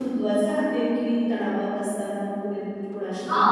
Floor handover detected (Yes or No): Yes